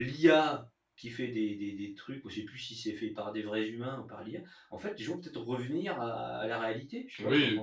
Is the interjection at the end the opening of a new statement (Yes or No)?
Yes